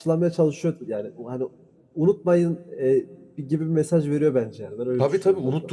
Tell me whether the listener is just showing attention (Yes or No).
No